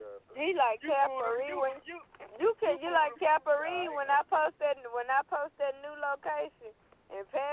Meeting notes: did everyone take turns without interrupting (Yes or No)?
No